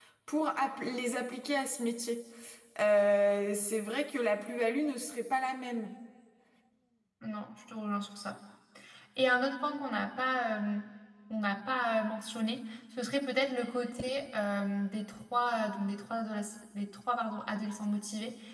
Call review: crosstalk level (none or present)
none